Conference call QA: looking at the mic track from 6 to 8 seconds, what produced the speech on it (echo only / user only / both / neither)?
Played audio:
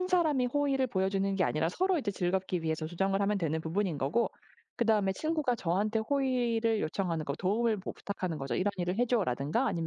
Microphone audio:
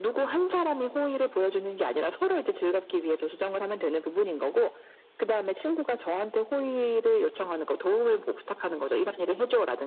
echo only